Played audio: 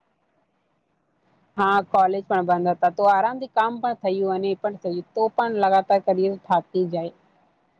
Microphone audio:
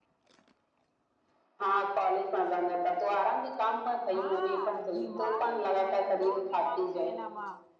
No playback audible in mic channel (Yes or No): No